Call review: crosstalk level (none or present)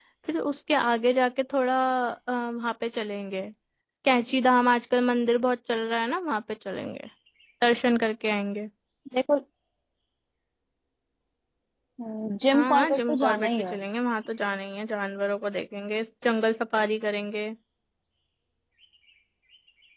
present